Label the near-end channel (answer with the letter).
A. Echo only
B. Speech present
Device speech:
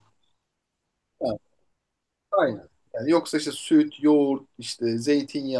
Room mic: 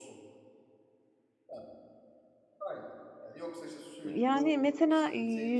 B